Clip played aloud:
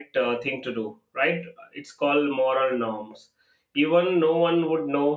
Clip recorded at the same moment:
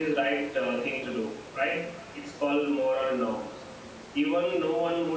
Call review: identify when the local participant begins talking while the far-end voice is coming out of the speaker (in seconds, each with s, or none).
none